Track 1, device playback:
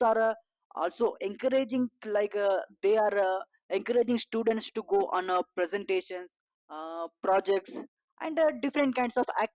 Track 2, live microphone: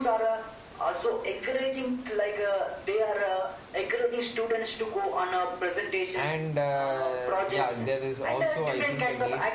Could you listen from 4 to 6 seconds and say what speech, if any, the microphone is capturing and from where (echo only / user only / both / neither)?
echo only